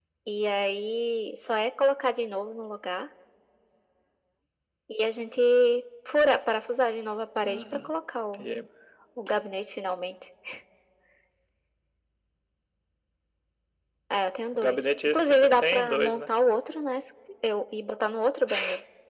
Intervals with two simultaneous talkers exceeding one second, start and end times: 14.5-16.3

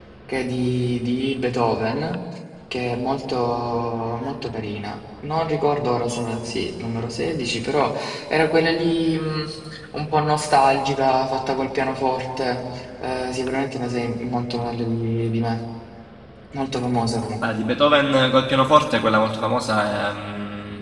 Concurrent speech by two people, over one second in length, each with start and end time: none

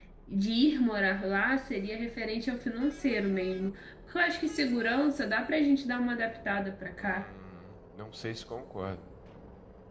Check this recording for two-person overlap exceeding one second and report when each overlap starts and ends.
none

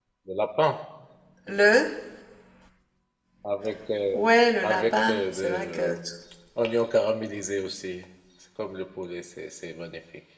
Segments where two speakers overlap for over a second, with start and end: 4.6-5.9

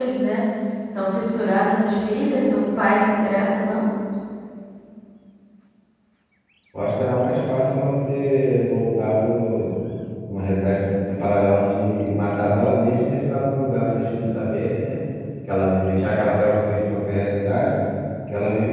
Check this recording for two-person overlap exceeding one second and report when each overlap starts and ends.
none

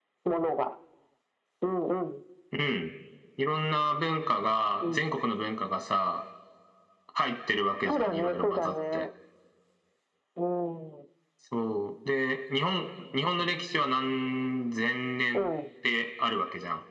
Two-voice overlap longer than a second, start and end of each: 7.8-9.0

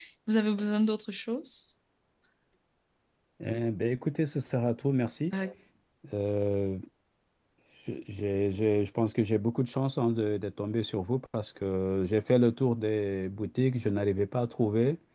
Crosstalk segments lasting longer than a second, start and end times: none

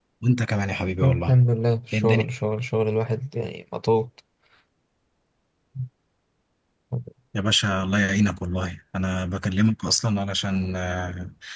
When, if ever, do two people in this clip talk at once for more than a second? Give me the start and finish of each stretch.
none

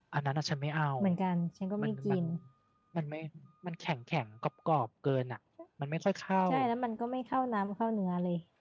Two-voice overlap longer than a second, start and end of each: none

